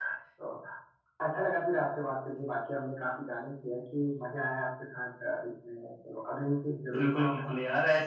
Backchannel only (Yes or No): No